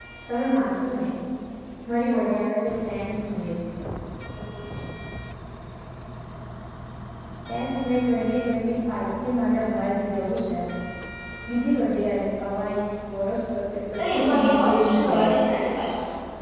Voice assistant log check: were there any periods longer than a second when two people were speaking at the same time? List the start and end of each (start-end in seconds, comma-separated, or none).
14.1-15.3